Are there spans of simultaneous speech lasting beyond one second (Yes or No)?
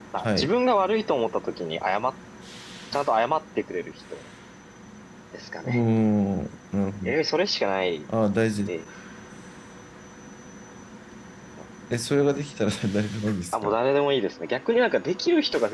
No